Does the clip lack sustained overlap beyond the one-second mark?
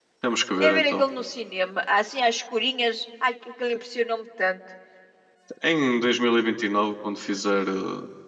Yes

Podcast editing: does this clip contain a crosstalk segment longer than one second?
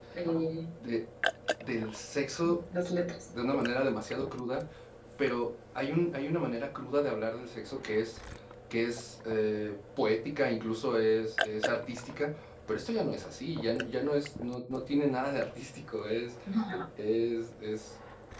No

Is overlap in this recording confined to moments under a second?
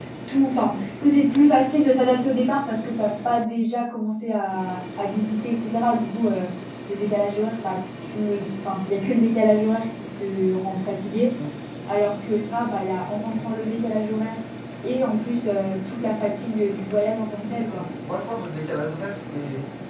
Yes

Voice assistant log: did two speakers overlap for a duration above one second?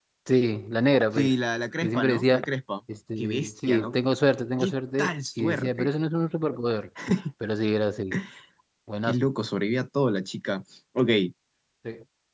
Yes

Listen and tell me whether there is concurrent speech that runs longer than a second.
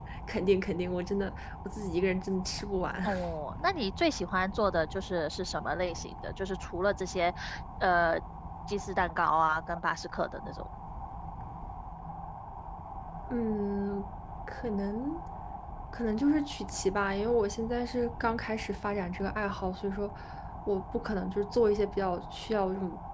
No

